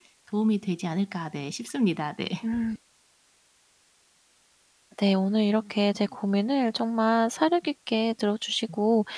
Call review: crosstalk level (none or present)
none